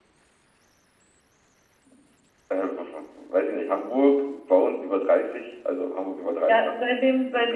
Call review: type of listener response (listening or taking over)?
taking over